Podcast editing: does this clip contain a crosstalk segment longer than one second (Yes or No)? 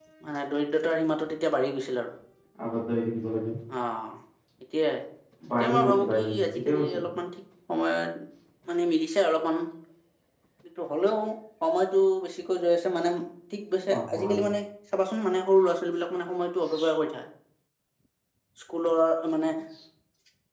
Yes